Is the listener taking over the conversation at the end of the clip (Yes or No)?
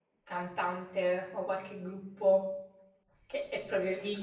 Yes